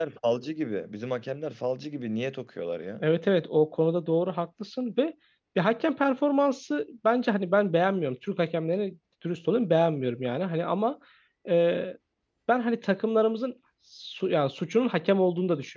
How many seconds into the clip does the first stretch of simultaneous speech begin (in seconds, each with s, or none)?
none